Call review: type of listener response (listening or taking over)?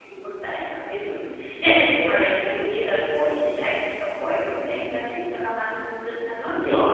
taking over